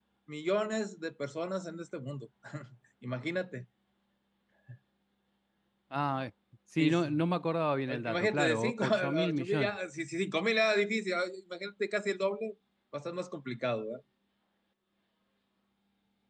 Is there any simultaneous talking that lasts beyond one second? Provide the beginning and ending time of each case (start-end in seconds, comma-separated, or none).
7.9-9.7